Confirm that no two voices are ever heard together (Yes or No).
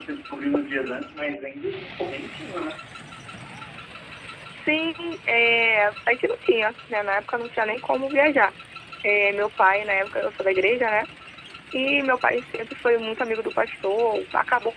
Yes